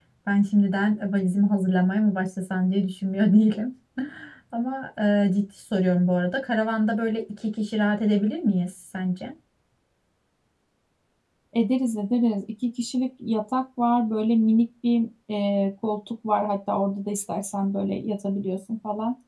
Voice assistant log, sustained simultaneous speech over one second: none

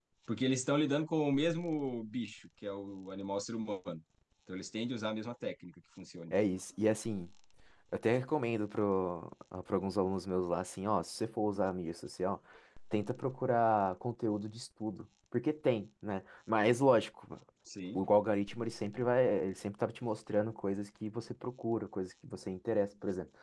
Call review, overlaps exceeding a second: none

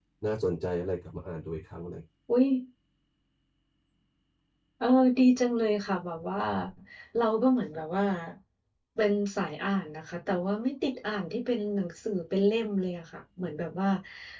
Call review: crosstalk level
none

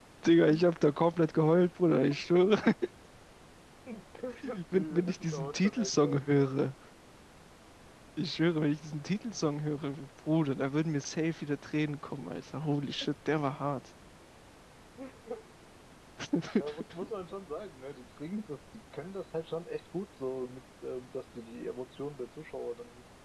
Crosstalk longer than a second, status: present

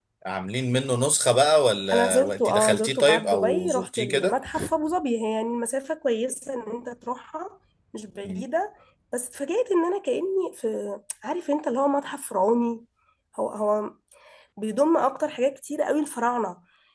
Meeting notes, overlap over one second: present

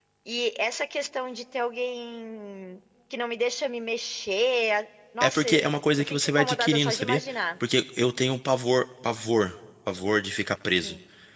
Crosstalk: present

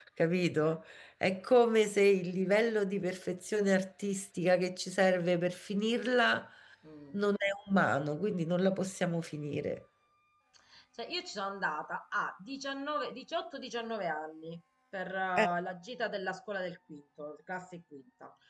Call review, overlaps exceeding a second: none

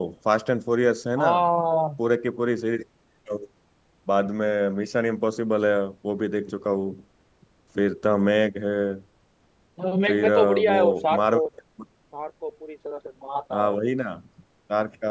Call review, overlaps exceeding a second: present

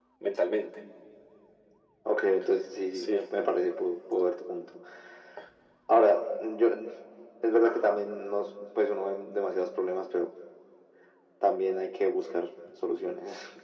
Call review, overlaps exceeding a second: none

